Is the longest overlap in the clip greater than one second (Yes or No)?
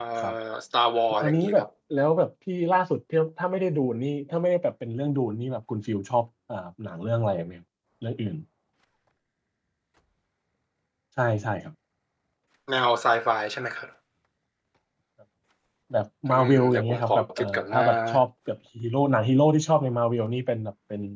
Yes